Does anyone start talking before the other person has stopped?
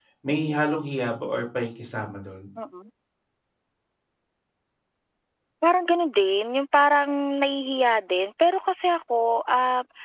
No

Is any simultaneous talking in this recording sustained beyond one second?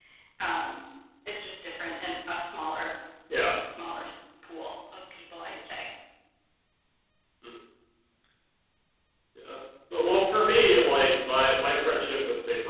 No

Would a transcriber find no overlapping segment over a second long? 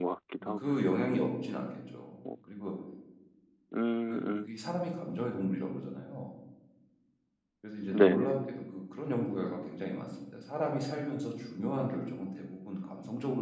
Yes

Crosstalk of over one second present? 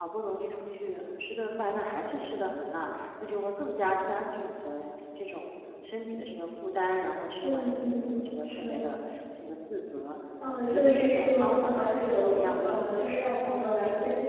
Yes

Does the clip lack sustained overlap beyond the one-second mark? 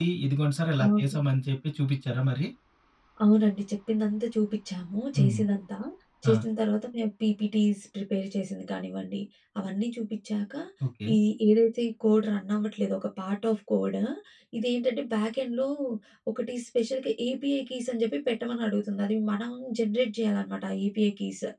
Yes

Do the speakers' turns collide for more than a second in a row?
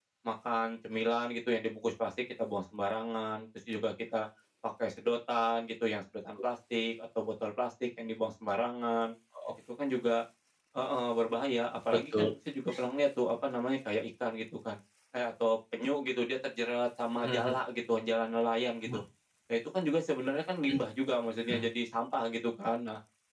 No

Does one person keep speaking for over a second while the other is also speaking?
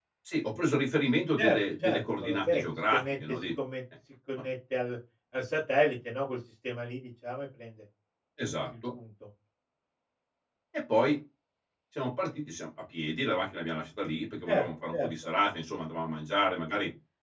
Yes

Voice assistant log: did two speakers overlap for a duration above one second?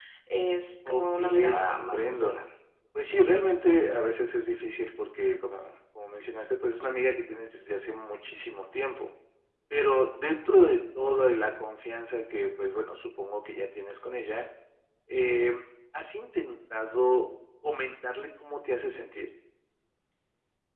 Yes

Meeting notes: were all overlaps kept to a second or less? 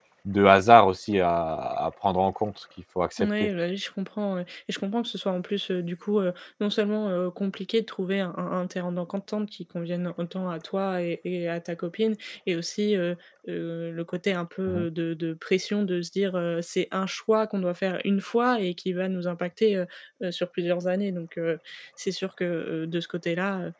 Yes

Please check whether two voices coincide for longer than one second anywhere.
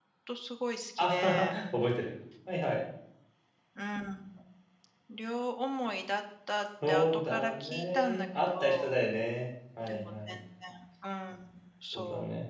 Yes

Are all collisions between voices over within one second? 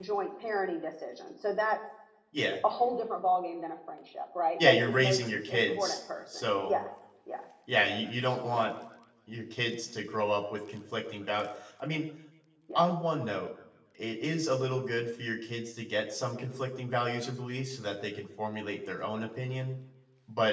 No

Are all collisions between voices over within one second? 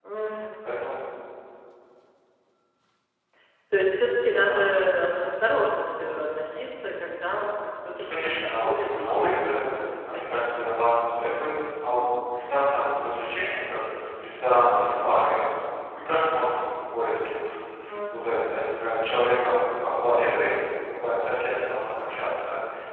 No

